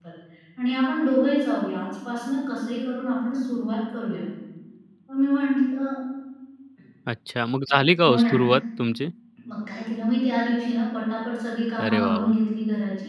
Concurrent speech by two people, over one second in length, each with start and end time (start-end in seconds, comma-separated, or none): none